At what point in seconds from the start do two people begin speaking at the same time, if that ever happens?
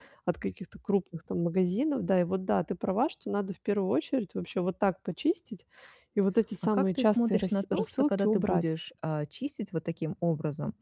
6.7 s

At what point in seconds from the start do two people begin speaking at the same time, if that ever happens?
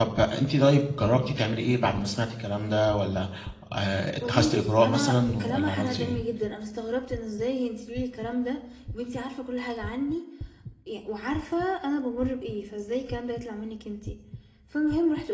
4.2 s

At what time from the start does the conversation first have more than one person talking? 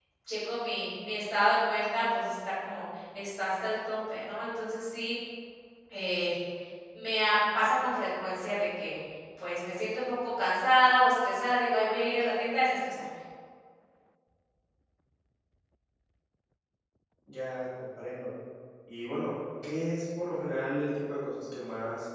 none

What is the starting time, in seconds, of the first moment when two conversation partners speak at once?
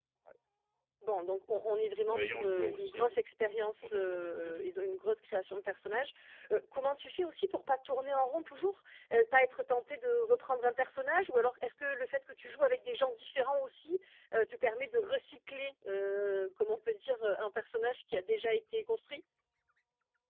2.1 s

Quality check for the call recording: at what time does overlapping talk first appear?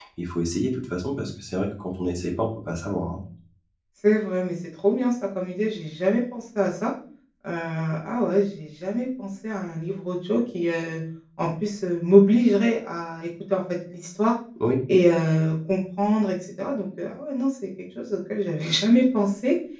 none

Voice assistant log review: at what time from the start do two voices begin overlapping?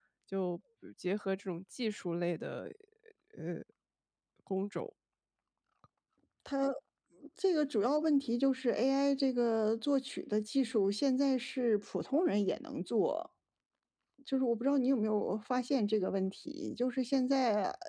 none

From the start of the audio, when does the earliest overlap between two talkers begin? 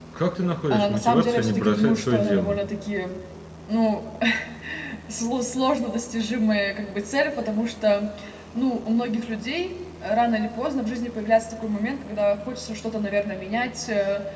0.7 s

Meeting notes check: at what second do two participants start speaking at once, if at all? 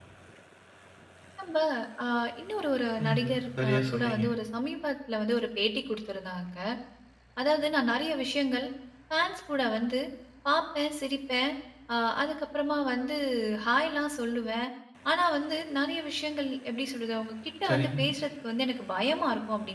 3.0 s

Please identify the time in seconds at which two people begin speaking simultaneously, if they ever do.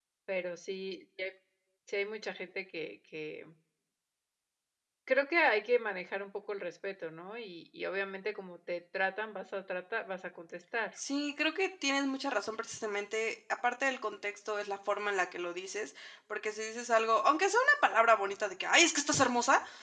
none

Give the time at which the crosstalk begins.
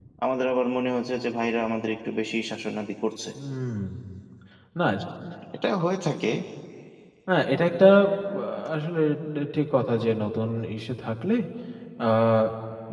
none

